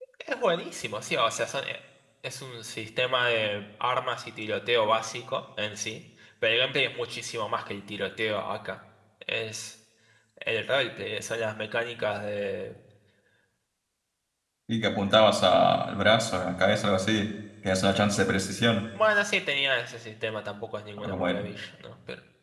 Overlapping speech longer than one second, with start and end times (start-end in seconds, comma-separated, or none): none